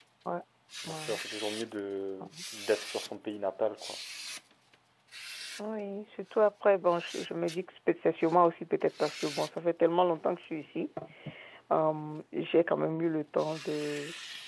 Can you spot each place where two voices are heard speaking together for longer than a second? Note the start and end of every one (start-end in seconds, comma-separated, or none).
none